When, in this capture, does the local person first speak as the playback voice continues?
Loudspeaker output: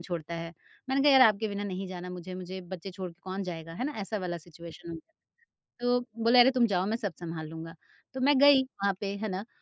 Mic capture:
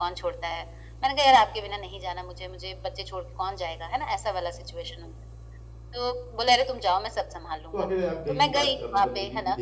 7.7 s

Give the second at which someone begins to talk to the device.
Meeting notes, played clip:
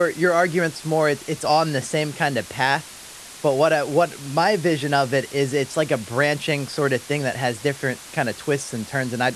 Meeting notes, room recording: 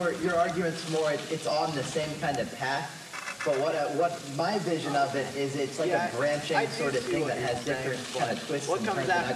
4.8 s

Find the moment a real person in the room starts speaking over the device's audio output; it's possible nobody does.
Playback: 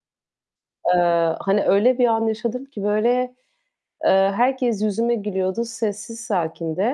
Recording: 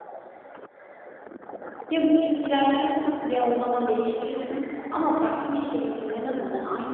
1.9 s

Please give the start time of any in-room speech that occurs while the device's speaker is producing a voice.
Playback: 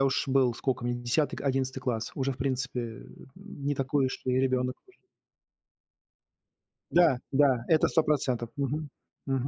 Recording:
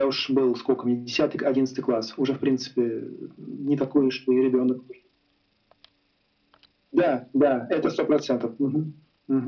none

